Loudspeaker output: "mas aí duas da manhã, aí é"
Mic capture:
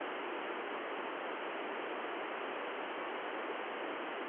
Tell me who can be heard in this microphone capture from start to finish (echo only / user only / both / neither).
neither